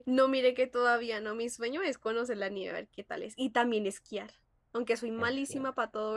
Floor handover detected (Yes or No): No